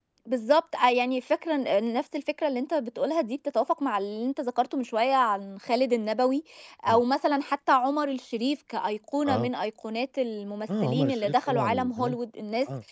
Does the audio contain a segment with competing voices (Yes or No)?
Yes